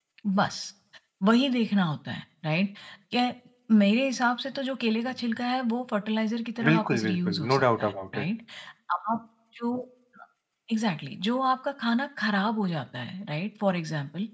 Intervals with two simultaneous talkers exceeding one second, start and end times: 6.7-8.2

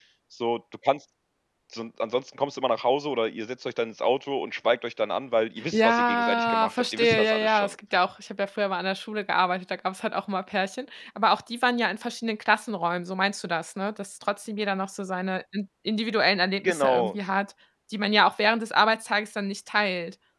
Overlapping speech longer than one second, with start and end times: 5.7-7.7

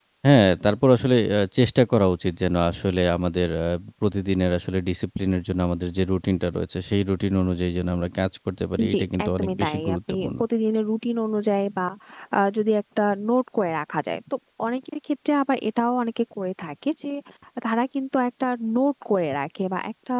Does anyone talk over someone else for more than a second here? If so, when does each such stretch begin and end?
8.9-10.4

